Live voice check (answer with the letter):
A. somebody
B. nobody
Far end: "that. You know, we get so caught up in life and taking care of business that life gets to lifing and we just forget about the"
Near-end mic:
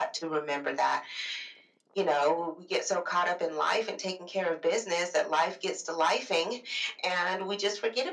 B